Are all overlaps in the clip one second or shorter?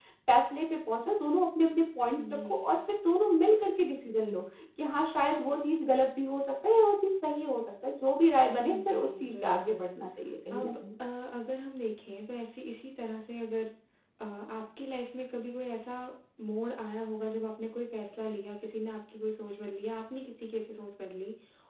No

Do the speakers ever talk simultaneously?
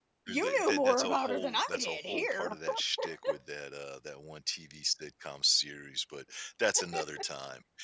Yes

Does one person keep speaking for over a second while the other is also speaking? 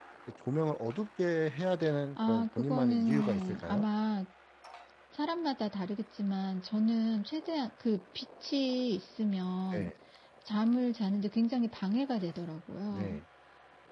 Yes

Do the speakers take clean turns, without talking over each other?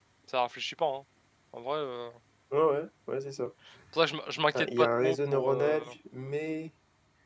No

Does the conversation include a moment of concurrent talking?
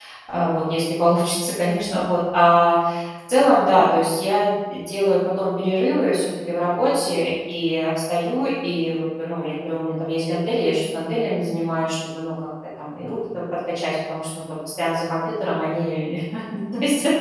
No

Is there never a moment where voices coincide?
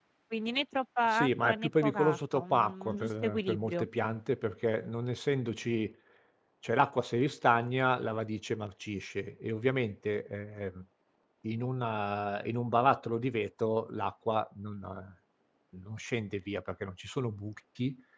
No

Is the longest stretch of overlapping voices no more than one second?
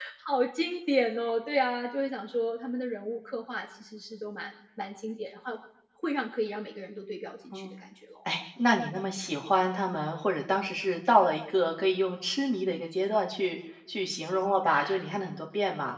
Yes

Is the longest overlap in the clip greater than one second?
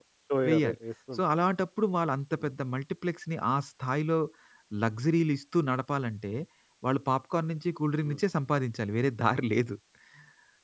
No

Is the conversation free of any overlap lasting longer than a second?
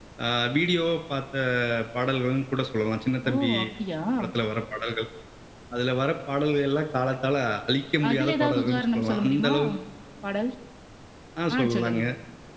No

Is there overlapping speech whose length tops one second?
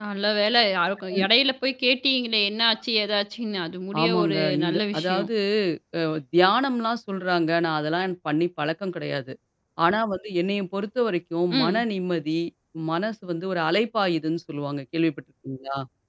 Yes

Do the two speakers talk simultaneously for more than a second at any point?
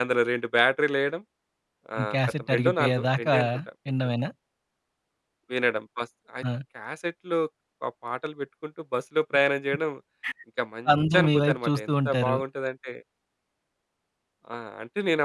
Yes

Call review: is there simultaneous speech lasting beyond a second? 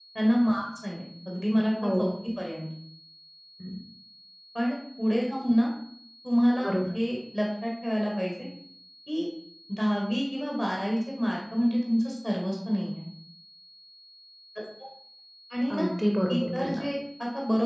No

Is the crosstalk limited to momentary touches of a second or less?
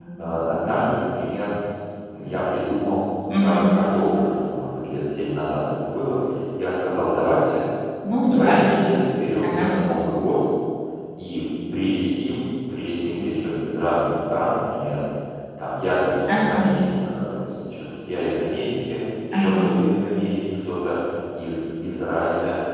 Yes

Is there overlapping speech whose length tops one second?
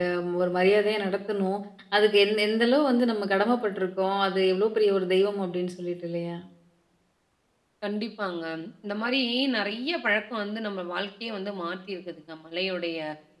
No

